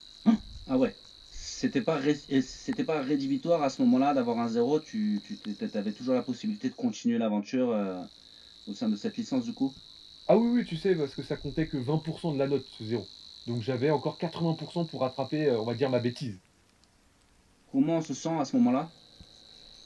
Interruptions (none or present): none